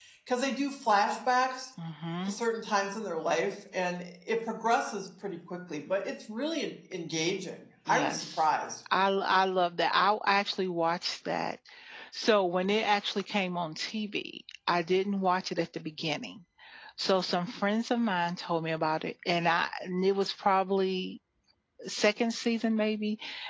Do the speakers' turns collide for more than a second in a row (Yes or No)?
No